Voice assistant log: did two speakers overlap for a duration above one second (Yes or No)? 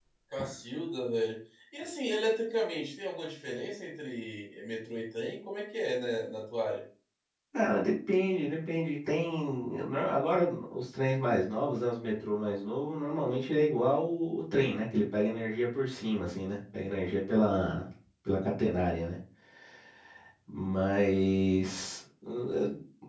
No